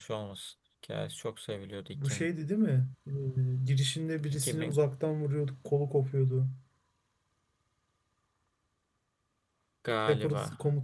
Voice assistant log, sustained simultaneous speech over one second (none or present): none